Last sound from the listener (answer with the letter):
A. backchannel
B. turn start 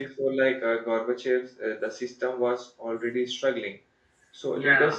A